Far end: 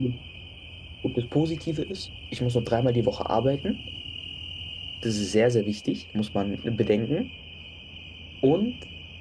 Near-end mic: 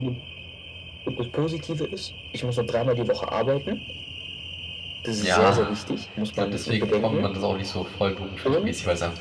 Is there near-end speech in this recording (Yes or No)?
Yes